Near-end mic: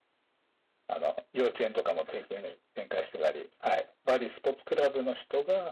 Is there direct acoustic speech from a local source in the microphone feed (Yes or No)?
Yes